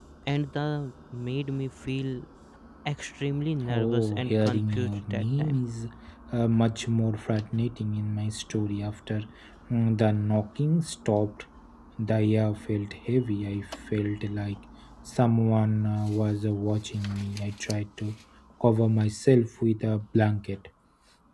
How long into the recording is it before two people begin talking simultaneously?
3.7 s

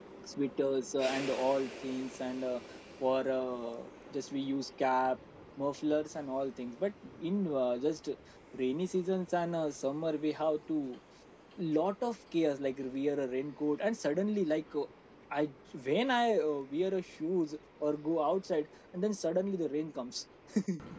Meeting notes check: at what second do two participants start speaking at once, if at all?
none

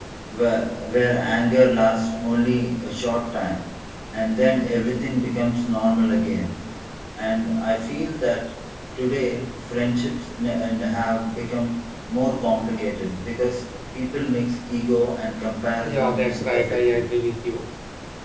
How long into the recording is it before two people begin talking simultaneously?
15.8 s

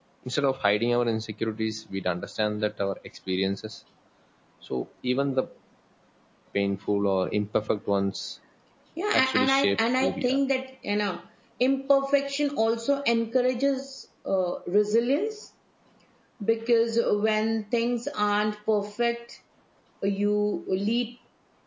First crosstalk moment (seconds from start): 9.1 s

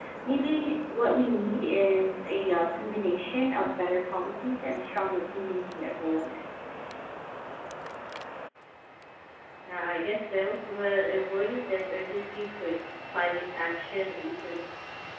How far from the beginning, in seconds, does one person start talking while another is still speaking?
none

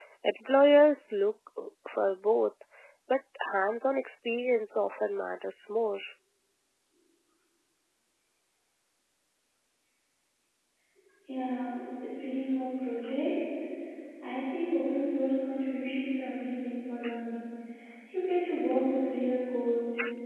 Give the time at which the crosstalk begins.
none

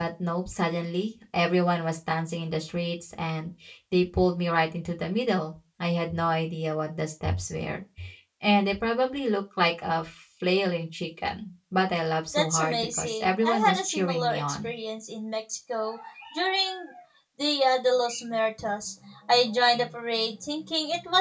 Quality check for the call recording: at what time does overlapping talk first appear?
12.3 s

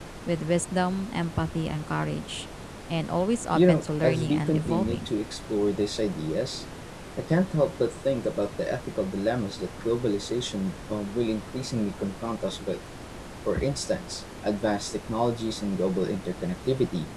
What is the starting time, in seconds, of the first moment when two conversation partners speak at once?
3.5 s

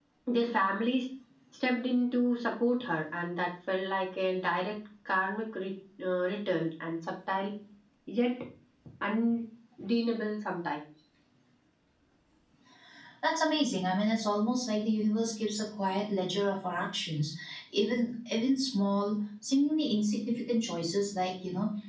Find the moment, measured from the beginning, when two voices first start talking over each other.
none

